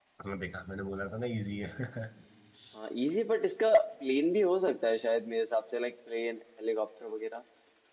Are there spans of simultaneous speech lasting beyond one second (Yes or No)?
No